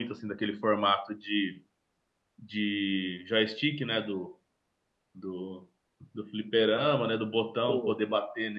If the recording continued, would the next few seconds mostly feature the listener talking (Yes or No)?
No